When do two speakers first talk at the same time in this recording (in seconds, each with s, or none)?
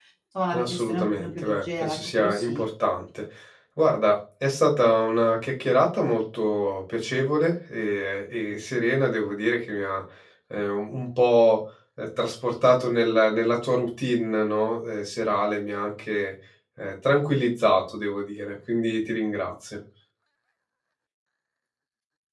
0.5 s